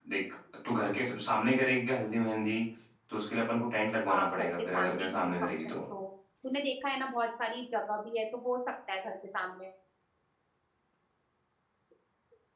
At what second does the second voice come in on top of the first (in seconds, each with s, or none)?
4.0 s